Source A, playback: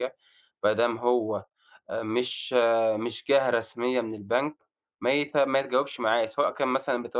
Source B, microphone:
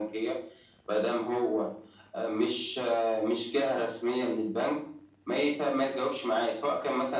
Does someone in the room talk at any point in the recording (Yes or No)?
No